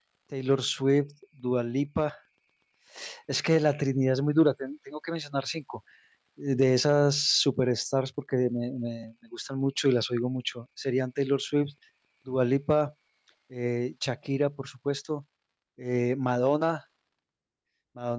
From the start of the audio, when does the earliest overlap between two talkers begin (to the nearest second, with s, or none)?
none